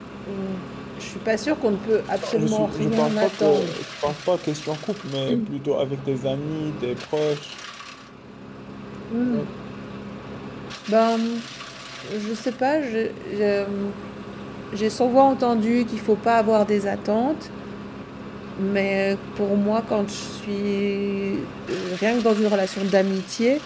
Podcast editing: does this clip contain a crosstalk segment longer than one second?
Yes, from 2.4 s

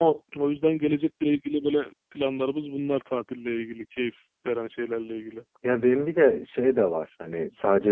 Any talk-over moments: No

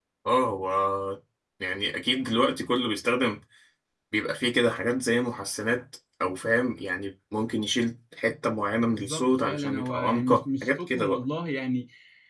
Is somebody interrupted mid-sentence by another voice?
Yes, from 8.9 s

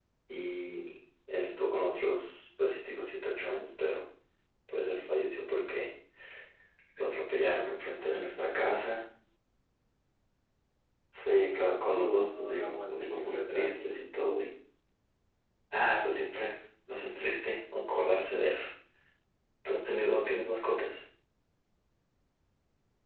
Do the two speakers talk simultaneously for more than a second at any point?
Yes, from 11.9 s

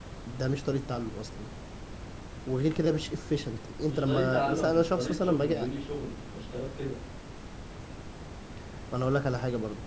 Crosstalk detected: Yes, from 3.9 s

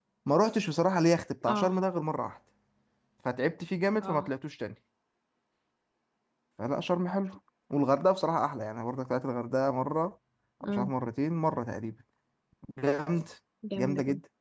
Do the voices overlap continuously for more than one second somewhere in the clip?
No

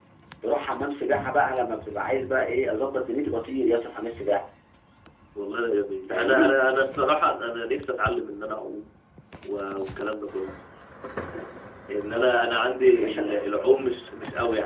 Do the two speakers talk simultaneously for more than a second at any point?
No

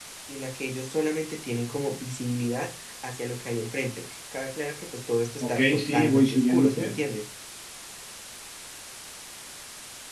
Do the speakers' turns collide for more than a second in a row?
Yes, from 5.4 s

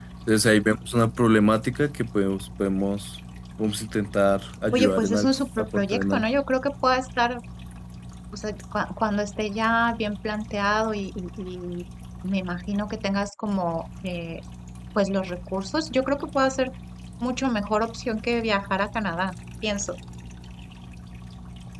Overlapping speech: Yes, from 4.7 s

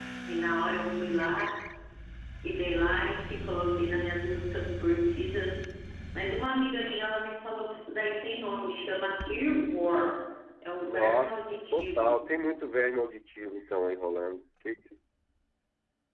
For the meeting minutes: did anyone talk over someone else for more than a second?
Yes, from 10.8 s

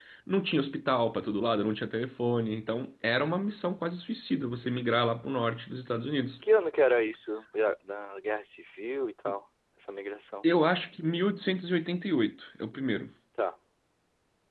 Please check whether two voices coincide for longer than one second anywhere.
No

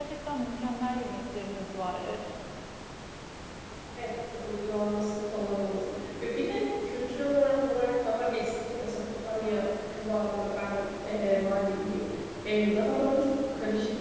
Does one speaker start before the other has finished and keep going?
No

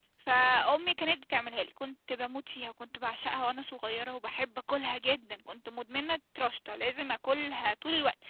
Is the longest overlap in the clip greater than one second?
No

